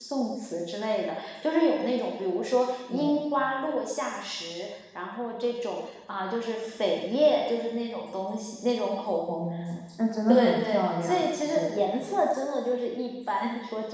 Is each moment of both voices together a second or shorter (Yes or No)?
No